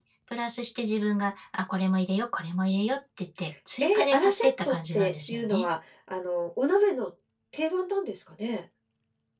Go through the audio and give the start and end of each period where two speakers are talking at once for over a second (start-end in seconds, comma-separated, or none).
3.8-5.6